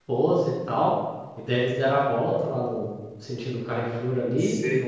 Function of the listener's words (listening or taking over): listening